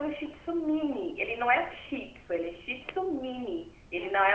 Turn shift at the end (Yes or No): No